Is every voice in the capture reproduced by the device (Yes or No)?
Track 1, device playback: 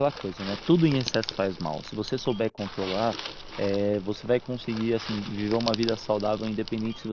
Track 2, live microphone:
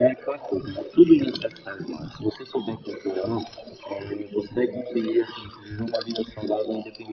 Yes